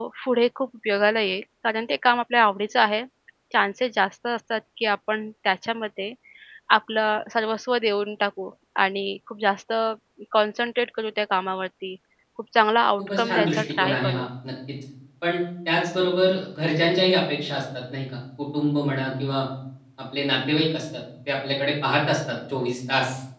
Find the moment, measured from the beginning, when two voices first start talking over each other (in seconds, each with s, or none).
13.0 s